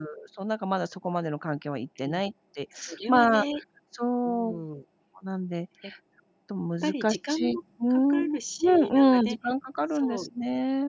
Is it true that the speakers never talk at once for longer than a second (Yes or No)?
No